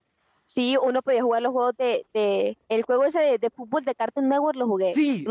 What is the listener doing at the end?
taking over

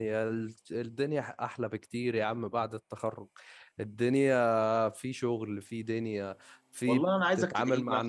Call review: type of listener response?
taking over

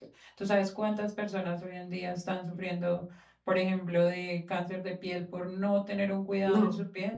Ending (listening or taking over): taking over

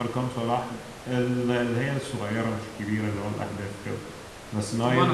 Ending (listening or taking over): listening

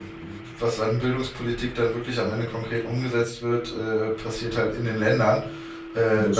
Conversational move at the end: listening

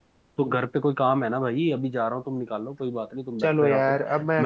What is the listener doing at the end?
taking over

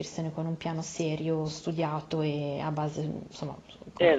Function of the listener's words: taking over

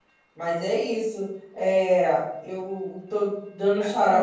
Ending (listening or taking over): listening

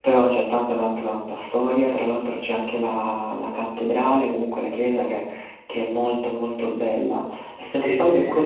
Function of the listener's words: listening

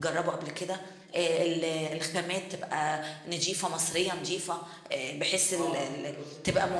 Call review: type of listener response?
taking over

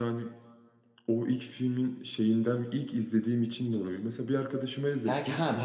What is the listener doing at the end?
taking over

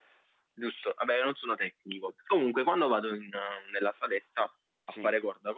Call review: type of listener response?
listening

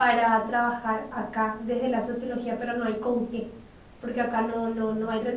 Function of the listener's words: listening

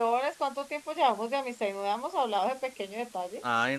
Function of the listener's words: taking over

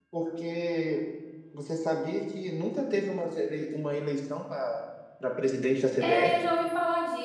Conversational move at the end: taking over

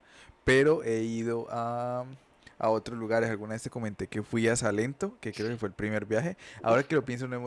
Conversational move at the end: listening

